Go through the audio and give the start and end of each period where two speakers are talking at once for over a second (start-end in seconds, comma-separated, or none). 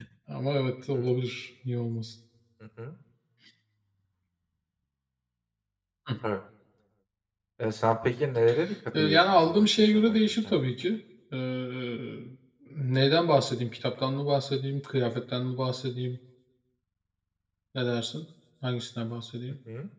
9.0-10.6